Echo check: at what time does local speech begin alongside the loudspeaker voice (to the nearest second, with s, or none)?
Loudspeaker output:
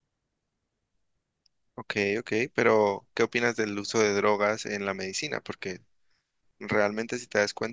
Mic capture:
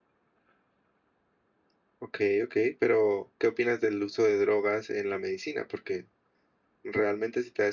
none